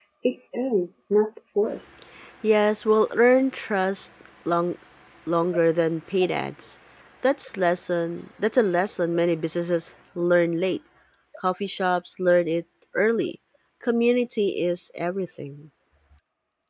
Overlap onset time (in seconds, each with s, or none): none